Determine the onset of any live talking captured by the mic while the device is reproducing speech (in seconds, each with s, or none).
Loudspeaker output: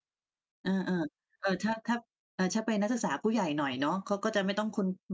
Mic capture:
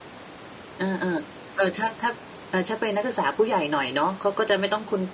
none